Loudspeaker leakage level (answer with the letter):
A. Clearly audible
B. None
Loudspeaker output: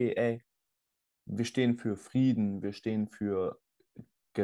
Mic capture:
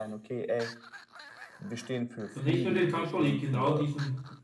A